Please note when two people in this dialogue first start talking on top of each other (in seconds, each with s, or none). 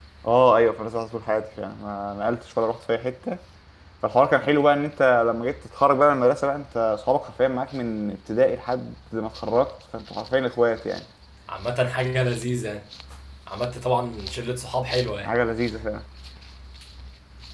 none